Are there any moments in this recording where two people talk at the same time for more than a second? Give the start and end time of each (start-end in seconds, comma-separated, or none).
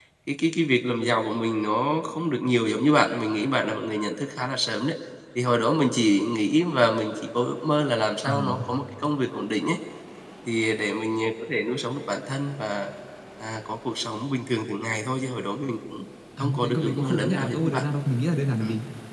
16.6-17.8